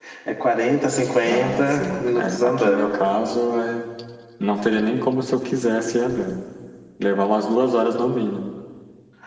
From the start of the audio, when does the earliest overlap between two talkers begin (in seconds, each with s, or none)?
1.3 s